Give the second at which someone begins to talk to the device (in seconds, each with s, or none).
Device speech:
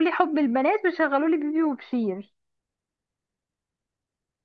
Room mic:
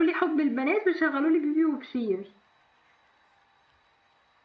none